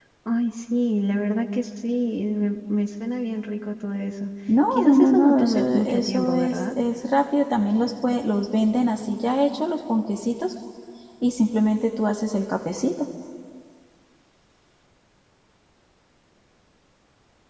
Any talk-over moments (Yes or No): Yes